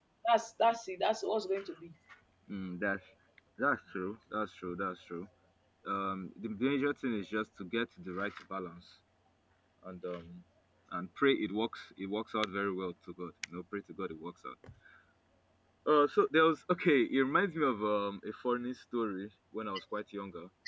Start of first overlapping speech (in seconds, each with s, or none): none